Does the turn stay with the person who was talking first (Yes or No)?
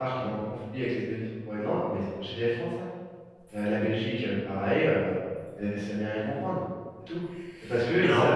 Yes